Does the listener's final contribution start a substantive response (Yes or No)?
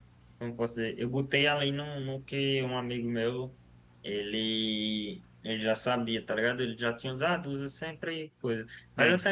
No